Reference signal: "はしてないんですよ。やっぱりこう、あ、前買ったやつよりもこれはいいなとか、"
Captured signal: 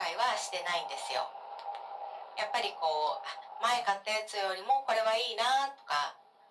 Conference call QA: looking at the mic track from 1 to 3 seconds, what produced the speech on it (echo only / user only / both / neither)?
echo only